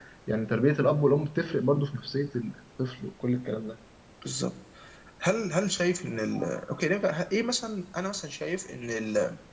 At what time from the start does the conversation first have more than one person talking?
none

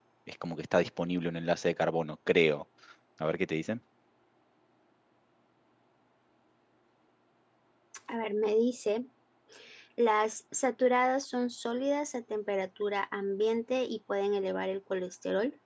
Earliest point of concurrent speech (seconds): none

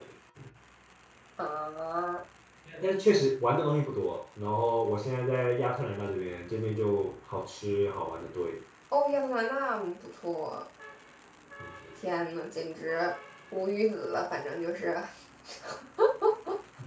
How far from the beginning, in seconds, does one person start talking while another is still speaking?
none

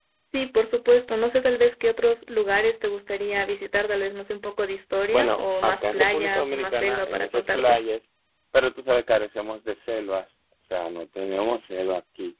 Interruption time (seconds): 5.1 s

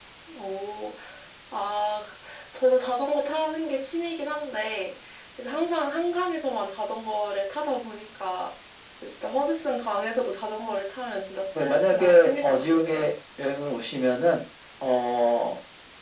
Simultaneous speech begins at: 11.5 s

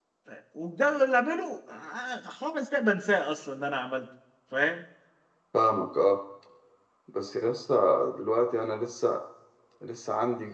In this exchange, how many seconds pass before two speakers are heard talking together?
none

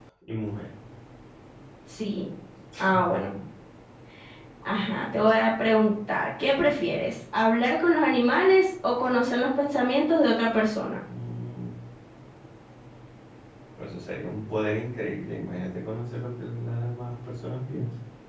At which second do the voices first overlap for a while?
none

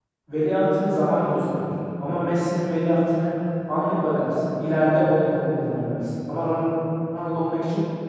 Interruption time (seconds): none

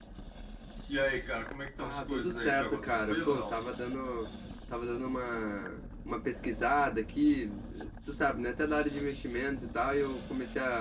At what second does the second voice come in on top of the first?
1.8 s

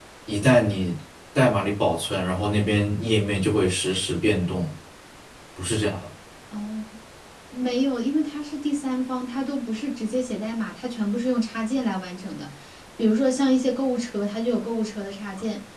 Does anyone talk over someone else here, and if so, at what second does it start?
none

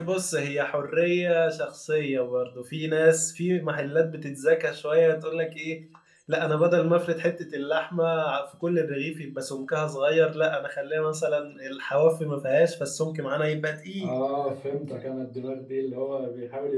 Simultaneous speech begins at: none

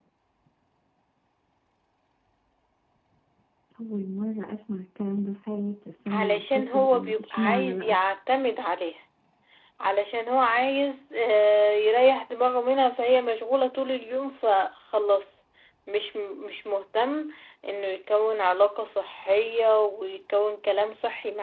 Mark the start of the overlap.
6.1 s

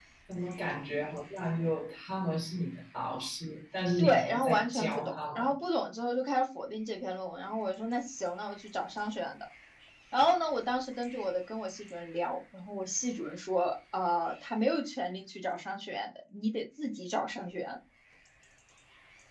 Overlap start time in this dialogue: 4.0 s

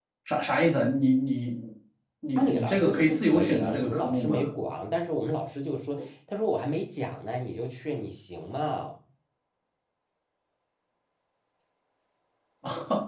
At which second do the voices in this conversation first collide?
2.4 s

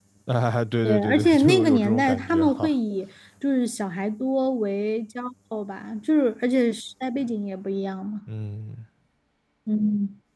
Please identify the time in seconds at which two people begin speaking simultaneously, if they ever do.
0.8 s

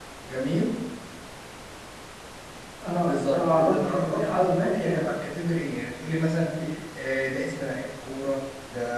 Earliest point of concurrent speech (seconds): 3.0 s

